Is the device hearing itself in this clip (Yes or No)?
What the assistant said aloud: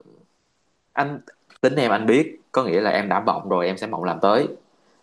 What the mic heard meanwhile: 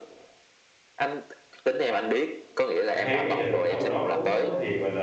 Yes